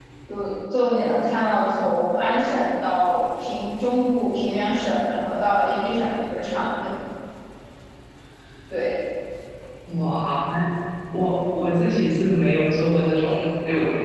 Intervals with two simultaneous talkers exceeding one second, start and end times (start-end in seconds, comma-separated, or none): none